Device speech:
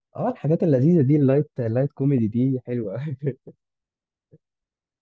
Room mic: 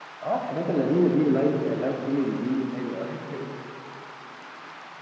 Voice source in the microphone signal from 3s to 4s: echo only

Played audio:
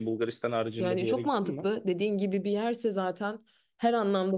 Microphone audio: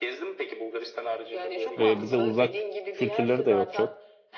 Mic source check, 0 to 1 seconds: echo only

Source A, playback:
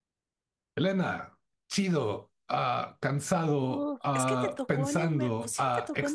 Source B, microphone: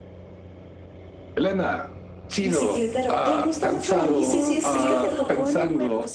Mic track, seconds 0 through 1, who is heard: neither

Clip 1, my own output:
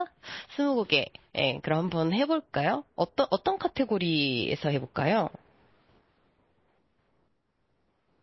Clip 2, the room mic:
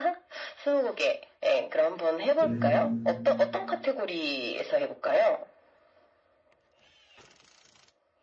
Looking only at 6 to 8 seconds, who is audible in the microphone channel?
neither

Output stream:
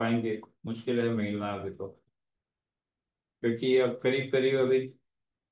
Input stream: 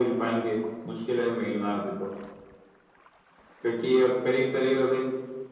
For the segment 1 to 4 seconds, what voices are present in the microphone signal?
echo only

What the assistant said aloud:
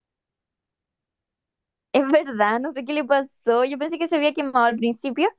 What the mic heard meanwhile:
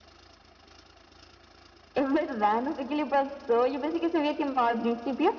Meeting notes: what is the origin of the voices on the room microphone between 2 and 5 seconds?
echo only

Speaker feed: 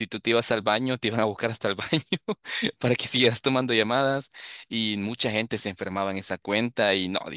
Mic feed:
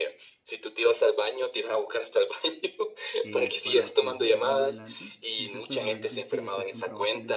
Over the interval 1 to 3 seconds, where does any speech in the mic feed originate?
echo only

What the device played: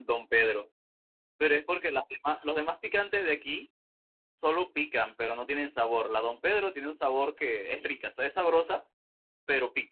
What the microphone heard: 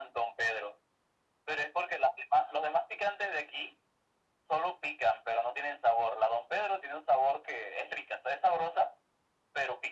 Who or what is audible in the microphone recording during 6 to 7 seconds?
echo only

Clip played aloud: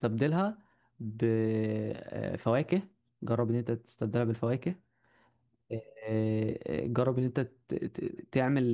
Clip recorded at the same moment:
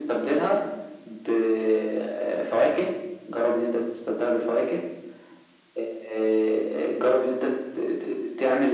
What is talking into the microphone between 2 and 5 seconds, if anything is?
echo only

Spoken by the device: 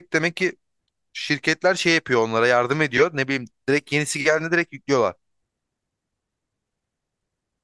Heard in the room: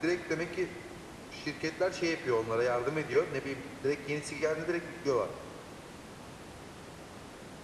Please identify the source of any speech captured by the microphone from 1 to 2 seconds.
echo only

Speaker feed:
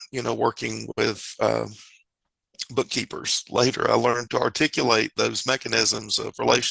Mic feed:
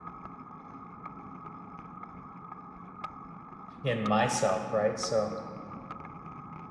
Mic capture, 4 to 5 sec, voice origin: user only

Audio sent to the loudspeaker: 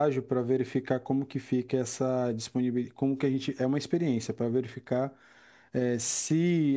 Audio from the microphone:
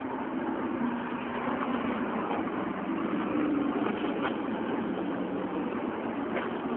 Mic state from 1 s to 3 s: neither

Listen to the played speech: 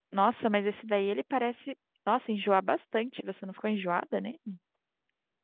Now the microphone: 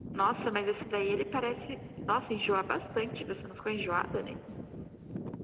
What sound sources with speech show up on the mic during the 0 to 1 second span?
echo only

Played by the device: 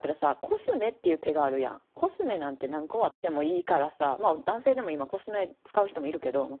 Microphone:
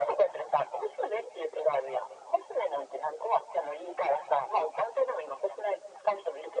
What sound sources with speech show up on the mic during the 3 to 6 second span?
echo only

